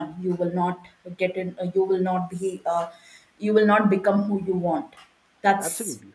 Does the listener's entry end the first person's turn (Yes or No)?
No